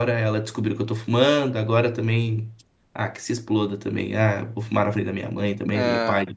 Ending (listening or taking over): listening